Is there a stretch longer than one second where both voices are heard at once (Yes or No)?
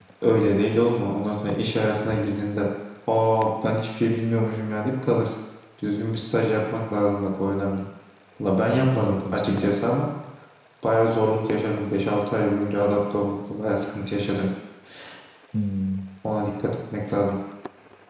Yes